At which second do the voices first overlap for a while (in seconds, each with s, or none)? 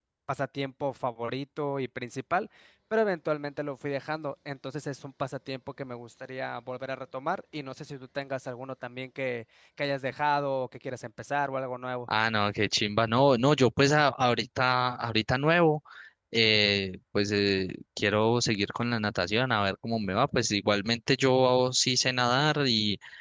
none